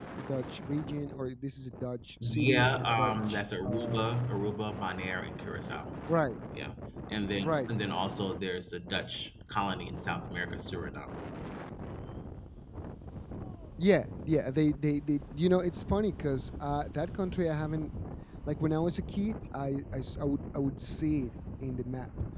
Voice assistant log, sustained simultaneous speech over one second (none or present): present